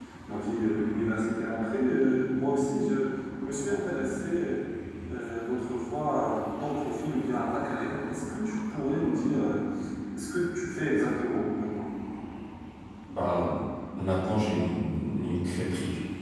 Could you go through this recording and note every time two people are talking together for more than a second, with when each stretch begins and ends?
none

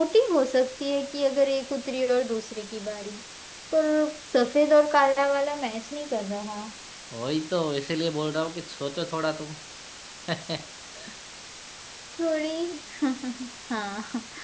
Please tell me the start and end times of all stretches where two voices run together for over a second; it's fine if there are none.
none

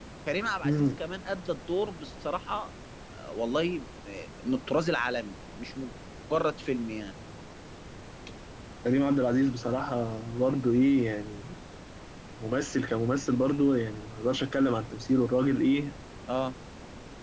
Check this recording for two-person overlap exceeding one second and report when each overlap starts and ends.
none

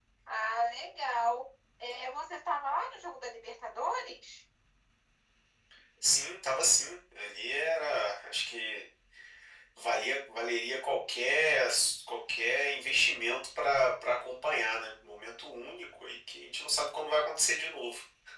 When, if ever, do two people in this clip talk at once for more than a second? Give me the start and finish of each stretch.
none

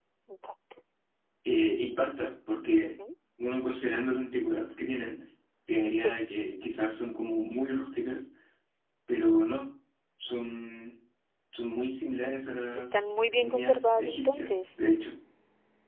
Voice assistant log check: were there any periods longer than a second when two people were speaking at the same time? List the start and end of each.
12.8-14.5

